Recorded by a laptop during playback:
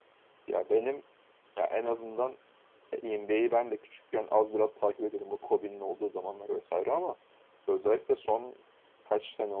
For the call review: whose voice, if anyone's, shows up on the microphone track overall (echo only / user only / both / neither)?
user only